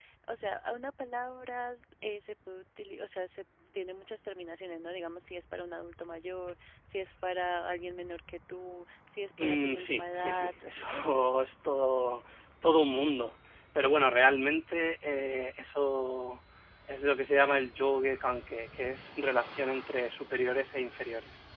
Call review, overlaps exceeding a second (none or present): present